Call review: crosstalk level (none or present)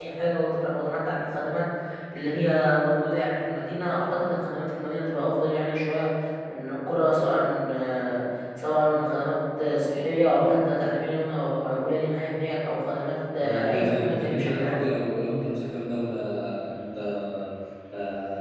present